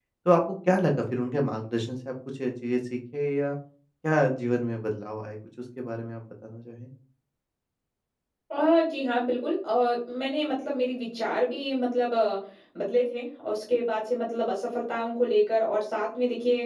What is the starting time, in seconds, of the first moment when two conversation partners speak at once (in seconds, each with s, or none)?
none